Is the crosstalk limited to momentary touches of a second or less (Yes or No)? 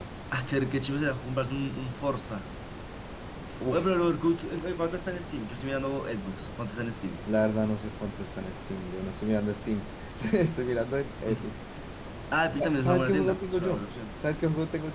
No